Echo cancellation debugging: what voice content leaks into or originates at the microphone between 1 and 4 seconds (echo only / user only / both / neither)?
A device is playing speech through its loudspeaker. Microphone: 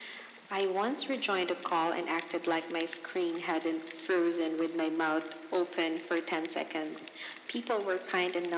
echo only